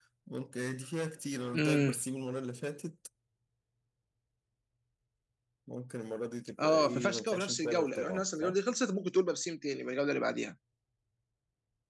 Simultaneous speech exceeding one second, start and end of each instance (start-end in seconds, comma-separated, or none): 6.6-8.6